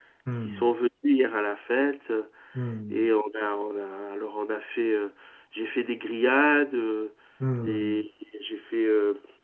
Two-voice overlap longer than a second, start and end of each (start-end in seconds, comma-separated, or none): none